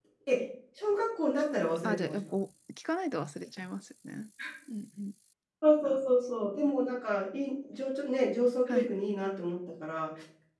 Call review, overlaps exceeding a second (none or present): none